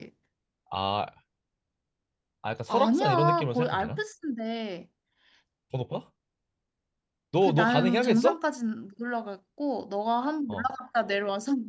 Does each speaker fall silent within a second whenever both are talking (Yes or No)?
No